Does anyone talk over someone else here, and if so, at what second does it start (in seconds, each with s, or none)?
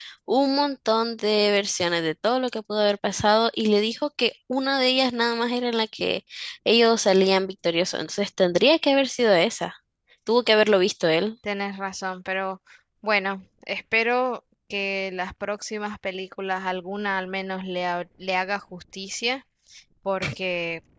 none